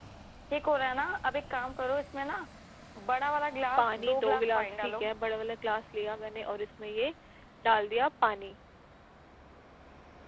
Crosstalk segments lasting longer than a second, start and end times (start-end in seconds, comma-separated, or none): 3.8-5.0